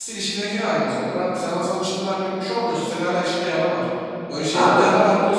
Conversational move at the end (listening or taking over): listening